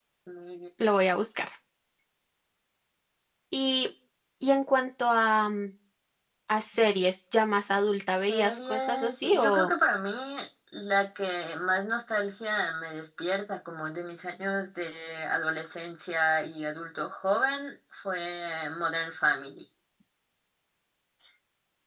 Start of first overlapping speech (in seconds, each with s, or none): 8.3 s